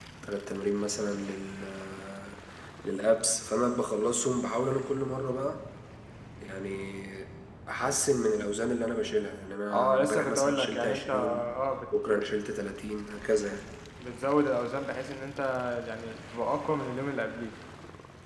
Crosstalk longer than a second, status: present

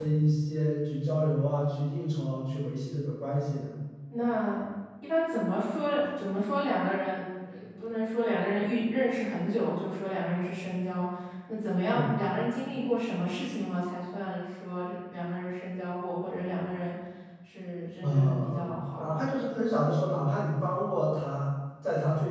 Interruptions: present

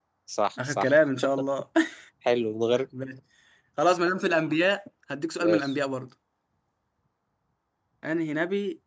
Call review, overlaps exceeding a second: none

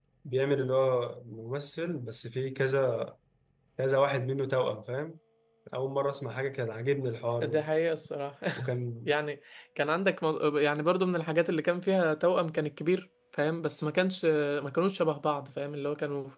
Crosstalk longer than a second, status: none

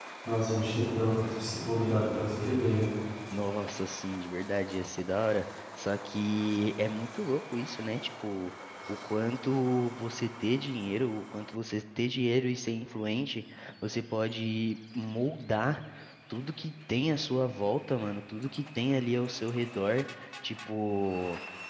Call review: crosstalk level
none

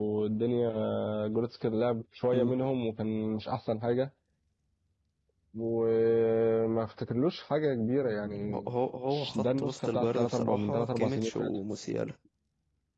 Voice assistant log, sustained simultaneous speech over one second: present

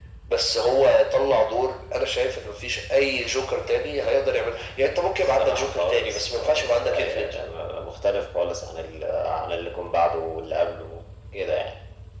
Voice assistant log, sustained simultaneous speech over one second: present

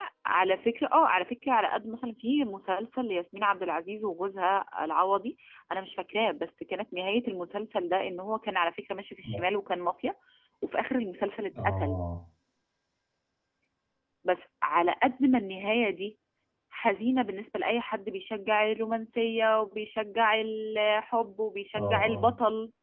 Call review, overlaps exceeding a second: none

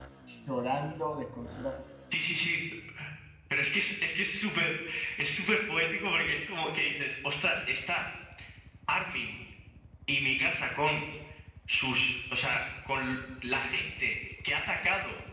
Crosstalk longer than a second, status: none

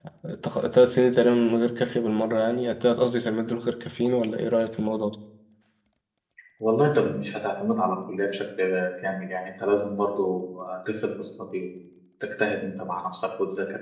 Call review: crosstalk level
none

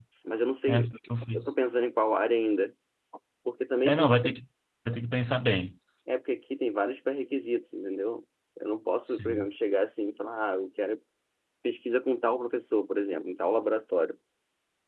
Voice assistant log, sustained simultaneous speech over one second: none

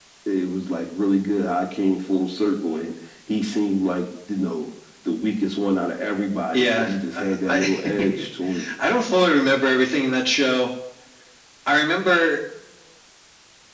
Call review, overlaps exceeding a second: present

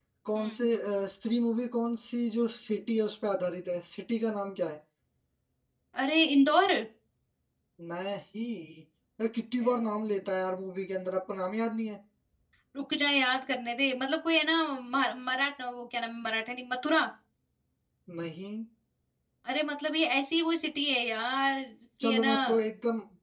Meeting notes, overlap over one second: none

